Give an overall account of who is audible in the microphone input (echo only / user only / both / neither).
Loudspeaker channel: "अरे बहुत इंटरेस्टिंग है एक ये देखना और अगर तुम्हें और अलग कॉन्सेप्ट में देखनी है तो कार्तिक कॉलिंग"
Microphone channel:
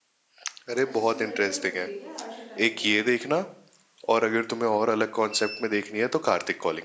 both